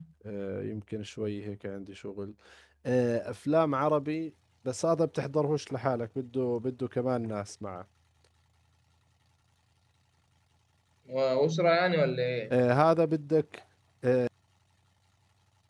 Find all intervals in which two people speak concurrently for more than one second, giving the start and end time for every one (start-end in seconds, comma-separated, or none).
none